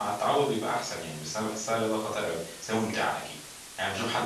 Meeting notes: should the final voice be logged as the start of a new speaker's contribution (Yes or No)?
Yes